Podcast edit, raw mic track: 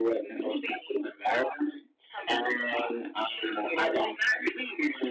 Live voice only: none

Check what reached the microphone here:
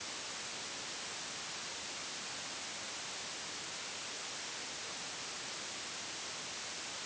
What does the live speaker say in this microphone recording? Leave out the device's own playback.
none

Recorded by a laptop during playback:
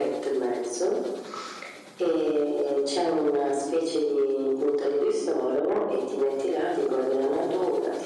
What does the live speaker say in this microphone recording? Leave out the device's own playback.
none

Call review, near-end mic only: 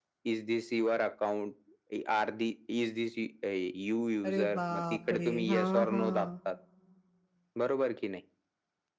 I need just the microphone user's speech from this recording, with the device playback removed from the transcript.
अरे, बापरे! हां, हां,

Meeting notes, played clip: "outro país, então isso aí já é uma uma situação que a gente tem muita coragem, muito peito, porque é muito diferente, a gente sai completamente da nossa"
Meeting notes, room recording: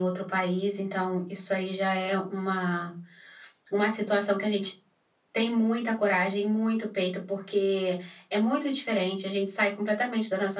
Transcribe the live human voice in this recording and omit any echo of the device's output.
none

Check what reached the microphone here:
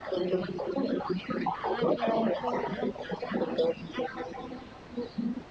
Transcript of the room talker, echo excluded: À, cái đêm này là vui, đúng không?

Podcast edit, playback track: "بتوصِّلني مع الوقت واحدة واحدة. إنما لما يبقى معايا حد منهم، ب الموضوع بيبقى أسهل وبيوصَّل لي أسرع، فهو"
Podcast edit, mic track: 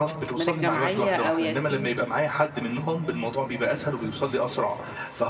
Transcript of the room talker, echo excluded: من الجمعية أو يتيم.

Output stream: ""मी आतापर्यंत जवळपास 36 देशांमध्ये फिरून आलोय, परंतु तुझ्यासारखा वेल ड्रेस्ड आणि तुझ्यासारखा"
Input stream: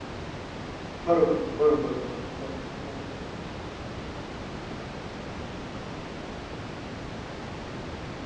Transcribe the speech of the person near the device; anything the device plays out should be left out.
बरोबर, बरोबर, बरोबर, बरोबर. हो.

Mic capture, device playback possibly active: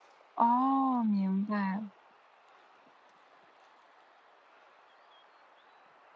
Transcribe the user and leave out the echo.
哦，明白。

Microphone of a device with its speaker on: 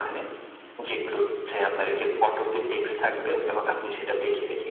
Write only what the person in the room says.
none

